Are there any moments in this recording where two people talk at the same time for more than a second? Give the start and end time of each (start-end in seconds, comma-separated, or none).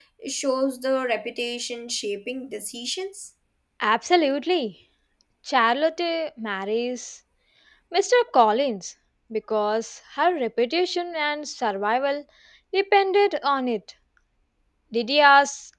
none